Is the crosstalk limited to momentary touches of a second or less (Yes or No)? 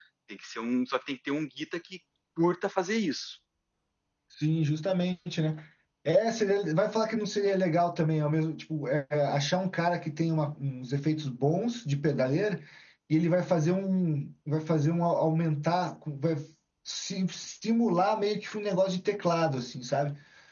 Yes